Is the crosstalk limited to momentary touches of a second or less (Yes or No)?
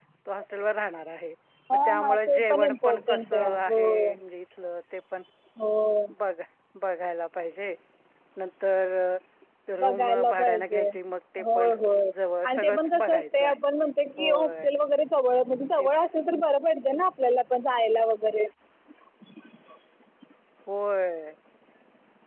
No